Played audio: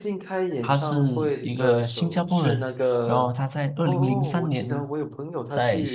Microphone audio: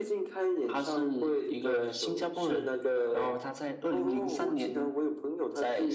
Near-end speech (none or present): none